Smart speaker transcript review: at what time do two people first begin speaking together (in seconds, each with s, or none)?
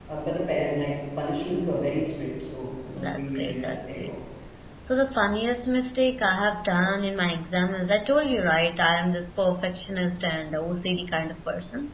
2.9 s